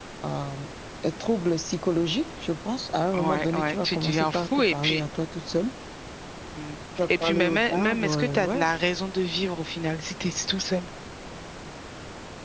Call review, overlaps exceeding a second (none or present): present